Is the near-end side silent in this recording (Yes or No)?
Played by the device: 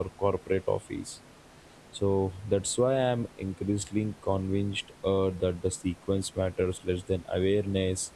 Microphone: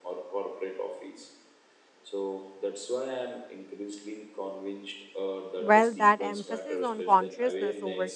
No